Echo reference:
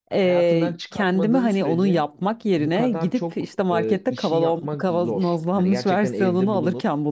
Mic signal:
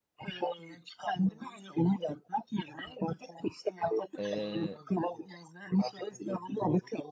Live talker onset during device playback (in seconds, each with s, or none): 4.2 s